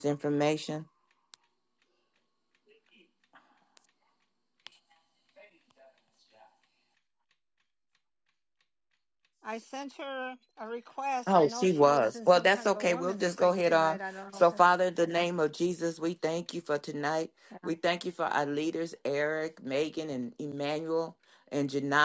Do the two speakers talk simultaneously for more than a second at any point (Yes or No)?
Yes